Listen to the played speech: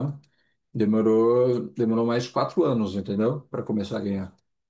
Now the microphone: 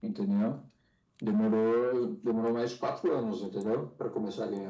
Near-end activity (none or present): none